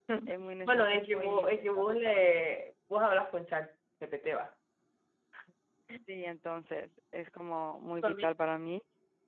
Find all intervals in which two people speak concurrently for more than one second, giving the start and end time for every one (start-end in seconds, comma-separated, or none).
0.6-2.2